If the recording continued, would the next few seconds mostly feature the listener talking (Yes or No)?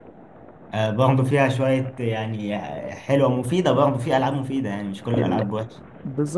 Yes